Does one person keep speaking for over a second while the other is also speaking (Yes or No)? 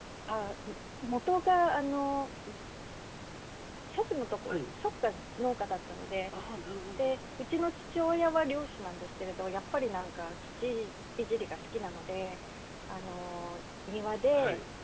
No